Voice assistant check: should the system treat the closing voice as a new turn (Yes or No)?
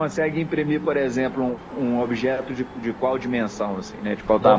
Yes